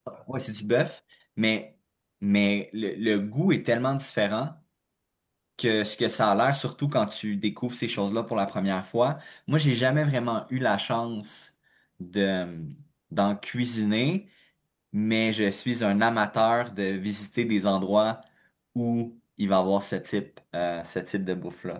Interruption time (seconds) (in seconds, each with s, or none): none